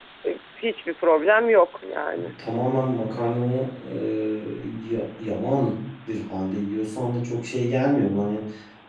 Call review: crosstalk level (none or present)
none